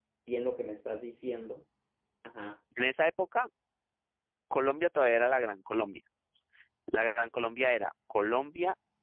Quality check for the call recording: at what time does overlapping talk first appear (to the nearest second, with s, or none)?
none